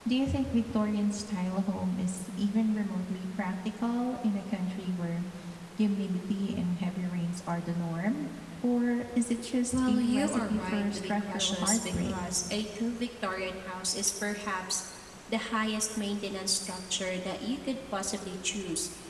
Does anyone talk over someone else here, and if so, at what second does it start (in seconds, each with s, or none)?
9.7 s